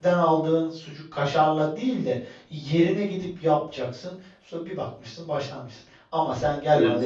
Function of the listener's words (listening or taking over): listening